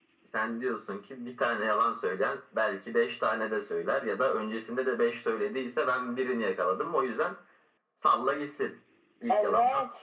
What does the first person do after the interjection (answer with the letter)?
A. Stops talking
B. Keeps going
A